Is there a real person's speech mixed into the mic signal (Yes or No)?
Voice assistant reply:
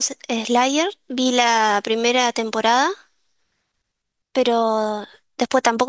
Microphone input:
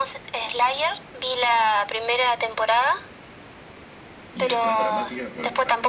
Yes